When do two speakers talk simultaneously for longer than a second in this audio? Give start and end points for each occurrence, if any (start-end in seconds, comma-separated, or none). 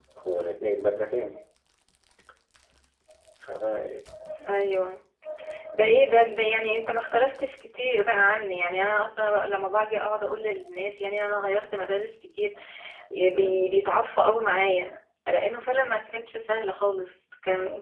none